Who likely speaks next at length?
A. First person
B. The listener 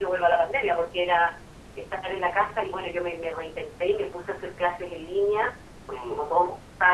A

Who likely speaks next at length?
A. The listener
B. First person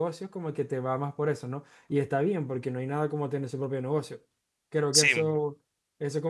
B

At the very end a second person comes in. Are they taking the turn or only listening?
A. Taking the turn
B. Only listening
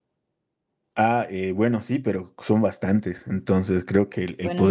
B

